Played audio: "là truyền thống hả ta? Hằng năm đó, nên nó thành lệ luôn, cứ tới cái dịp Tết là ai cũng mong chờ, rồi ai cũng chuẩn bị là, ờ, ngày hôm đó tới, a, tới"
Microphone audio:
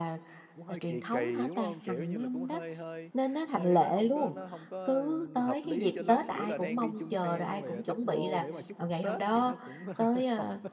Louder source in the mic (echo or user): echo